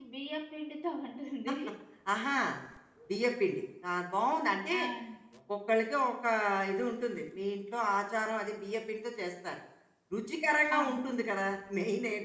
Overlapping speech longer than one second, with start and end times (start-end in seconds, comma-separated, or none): none